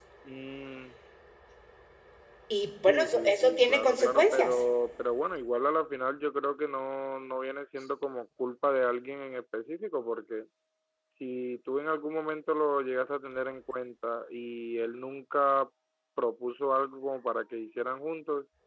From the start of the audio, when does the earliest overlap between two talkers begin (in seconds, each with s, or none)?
2.9 s